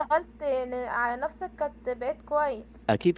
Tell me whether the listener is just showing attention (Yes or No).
No